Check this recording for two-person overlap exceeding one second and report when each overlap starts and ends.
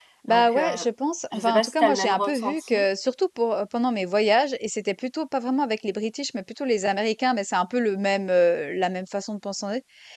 1.3-2.8

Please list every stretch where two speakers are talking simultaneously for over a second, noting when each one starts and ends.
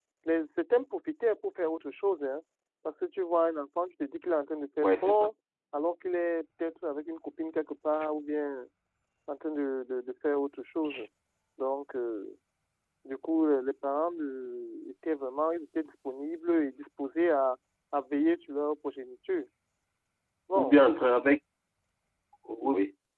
none

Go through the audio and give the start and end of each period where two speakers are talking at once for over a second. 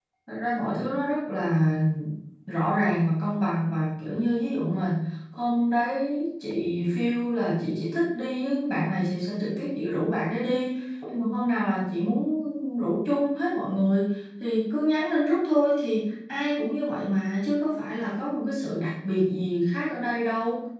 none

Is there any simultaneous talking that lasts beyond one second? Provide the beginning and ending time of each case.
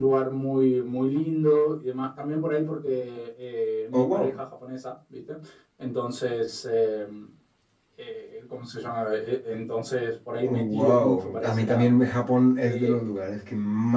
10.4-11.9

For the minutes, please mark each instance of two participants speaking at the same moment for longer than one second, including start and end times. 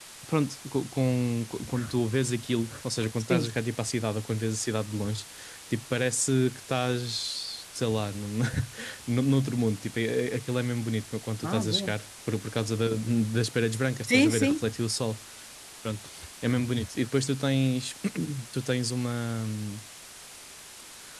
none

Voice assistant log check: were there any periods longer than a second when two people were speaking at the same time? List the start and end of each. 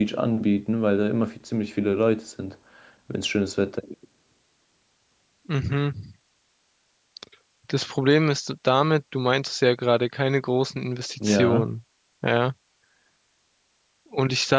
none

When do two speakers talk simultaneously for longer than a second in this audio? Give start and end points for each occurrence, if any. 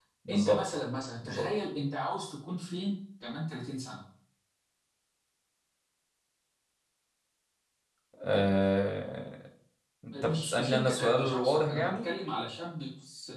10.2-12.1

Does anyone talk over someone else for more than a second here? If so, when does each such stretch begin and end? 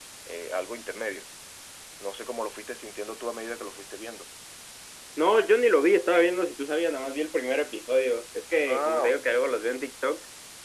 none

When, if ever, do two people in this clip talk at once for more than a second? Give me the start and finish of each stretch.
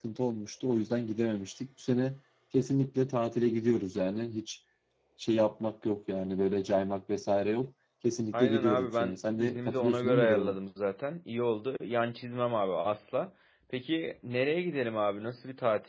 8.3-10.6

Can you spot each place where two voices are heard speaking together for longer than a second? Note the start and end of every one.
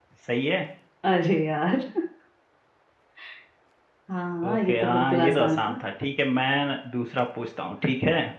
4.5-5.8

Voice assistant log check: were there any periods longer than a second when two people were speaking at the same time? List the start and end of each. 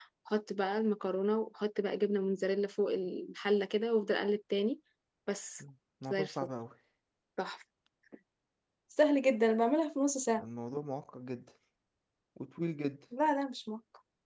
none

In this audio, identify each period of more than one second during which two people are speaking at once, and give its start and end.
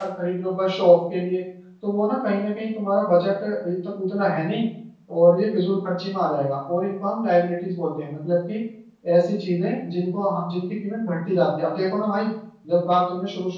none

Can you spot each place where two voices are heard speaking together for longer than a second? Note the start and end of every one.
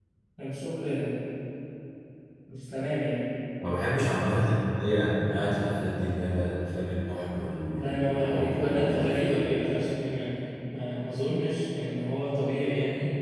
7.7-9.4

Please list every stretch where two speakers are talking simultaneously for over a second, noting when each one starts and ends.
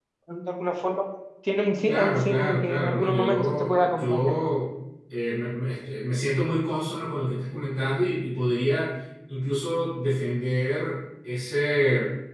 1.9-4.3

